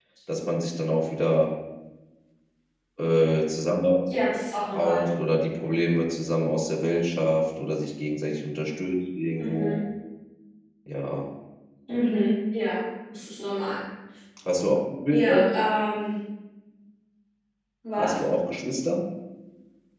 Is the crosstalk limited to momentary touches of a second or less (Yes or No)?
Yes